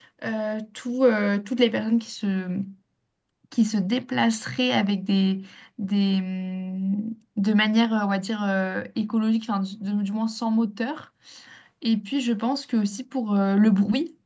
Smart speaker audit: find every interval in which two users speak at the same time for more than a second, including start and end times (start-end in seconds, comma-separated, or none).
none